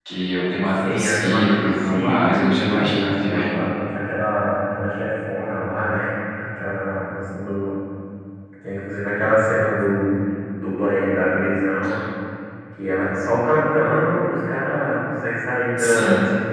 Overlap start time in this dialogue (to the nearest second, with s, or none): 1 s